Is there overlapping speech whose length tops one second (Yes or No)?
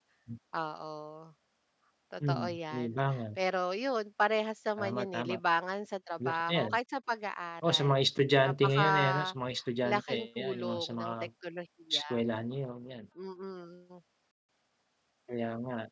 Yes